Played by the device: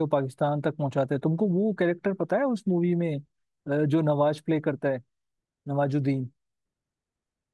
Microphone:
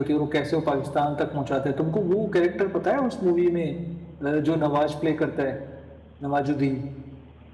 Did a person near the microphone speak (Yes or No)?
No